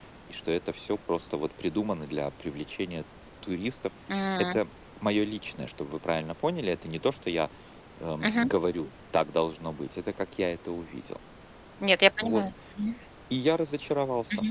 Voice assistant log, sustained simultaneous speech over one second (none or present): none